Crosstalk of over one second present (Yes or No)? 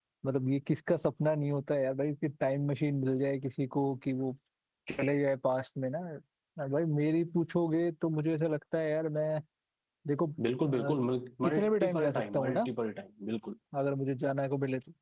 Yes